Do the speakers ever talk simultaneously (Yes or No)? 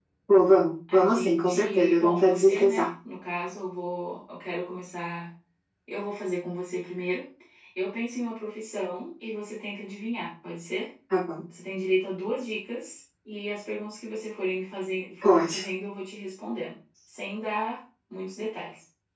Yes